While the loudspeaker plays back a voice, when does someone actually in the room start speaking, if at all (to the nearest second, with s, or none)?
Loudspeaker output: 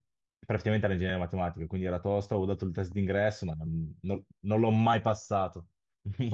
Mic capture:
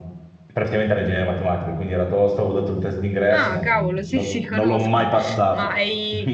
3 s